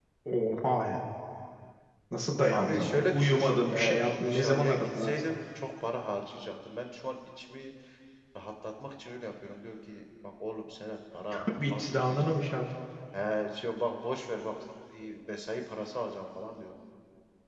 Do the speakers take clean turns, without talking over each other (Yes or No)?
No